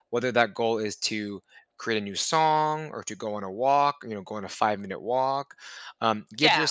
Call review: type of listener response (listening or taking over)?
listening